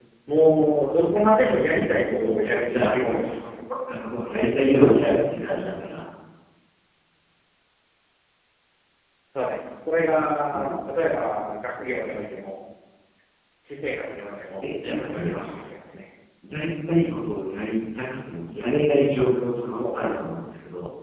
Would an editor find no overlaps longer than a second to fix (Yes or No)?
No